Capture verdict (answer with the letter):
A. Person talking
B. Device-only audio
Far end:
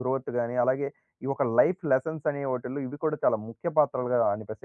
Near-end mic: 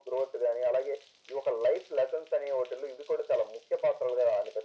B